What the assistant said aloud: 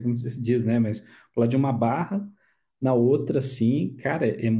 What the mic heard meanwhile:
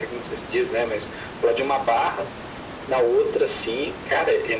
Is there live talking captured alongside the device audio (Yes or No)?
No